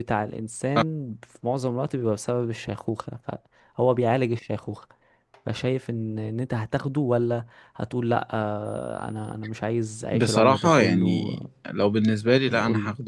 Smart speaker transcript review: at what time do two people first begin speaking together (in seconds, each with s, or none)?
10.1 s